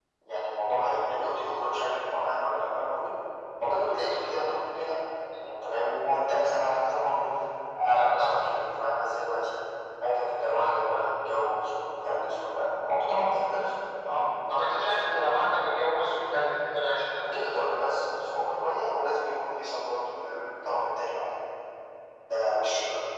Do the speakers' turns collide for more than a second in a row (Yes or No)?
No